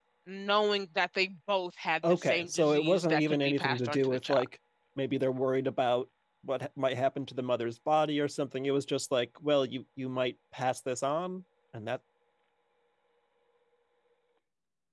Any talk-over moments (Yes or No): Yes